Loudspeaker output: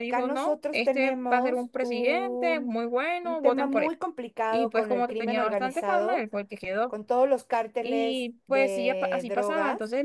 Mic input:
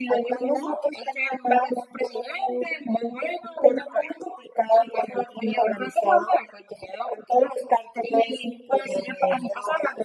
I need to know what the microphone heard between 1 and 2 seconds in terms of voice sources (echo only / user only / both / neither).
echo only